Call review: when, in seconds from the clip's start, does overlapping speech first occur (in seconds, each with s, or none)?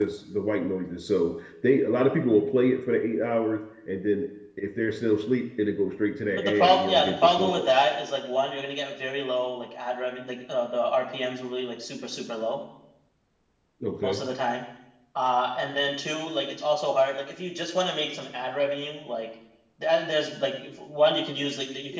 6.3 s